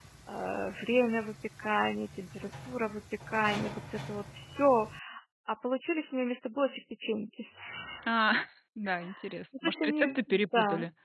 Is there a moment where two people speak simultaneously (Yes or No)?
Yes